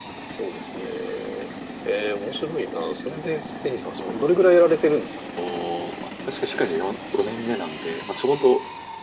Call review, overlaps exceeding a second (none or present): none